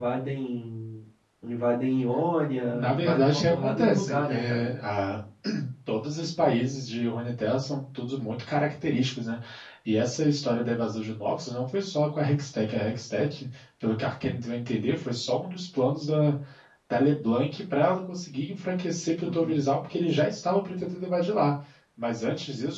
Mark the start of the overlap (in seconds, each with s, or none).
2.7 s